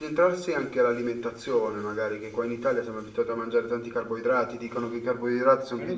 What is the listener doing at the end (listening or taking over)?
taking over